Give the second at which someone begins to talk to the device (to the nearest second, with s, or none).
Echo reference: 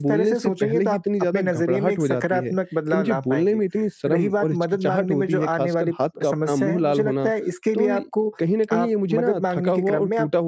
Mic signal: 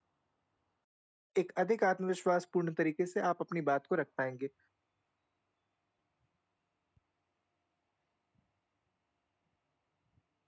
1 s